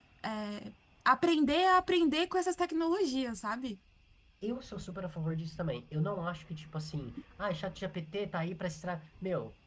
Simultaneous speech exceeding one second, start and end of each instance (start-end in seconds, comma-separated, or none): none